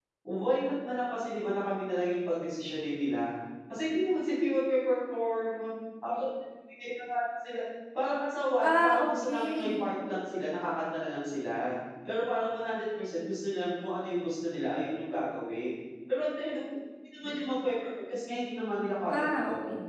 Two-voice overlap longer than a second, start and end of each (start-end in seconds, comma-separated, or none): 8.6-9.8